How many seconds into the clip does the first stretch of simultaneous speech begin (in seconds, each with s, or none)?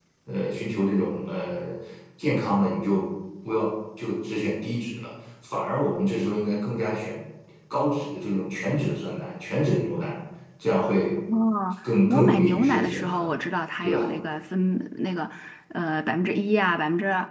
12.1 s